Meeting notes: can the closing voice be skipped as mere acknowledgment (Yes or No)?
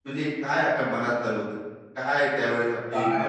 No